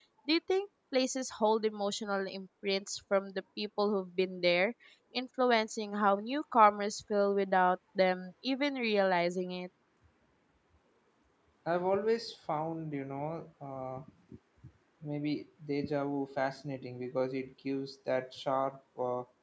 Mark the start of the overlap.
none

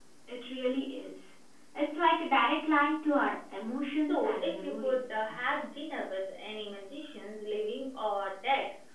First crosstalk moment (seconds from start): 4.0 s

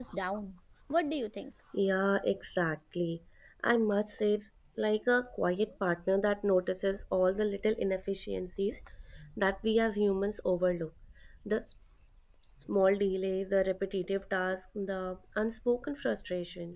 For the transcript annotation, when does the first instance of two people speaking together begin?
none

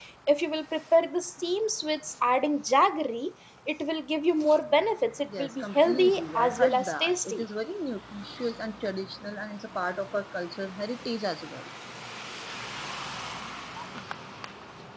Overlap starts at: 5.2 s

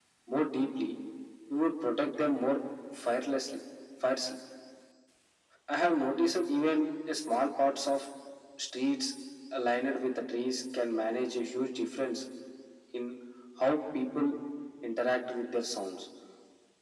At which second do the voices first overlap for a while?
none

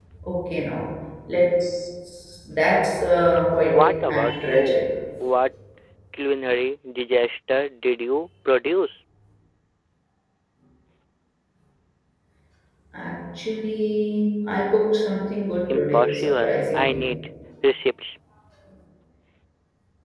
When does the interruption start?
3.6 s

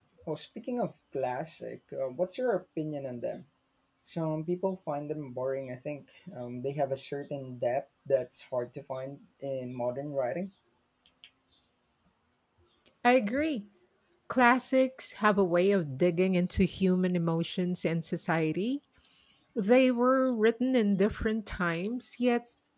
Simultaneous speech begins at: none

